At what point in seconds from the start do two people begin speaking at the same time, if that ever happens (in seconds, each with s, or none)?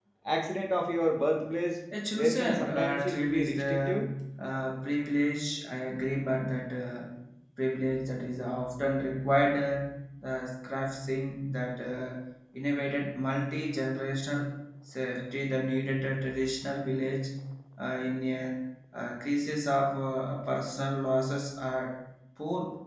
1.9 s